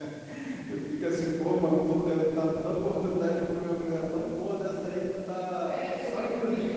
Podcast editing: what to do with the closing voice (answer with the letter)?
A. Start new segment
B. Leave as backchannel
A